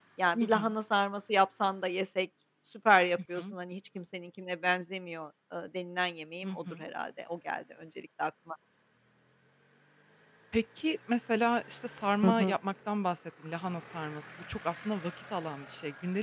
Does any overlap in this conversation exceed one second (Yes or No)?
No